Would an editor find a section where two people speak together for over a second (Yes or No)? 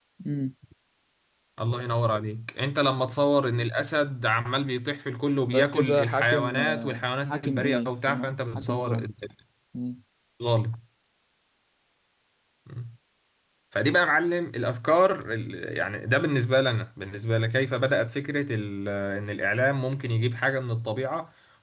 Yes